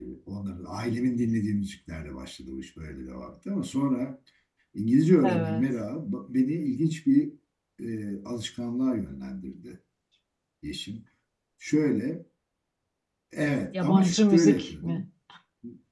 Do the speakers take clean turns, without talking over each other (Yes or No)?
No